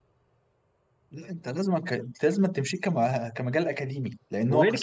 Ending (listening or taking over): taking over